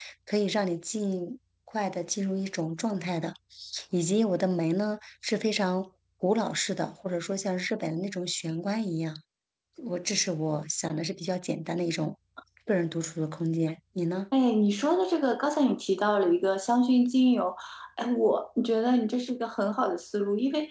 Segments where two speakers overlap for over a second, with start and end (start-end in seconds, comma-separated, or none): none